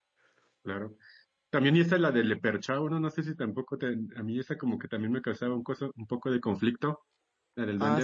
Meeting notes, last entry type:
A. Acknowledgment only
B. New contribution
B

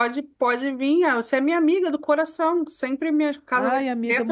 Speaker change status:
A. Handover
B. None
A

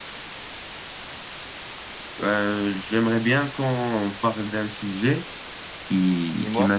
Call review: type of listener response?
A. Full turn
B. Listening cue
B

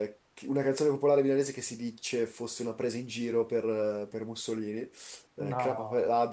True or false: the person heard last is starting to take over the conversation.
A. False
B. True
A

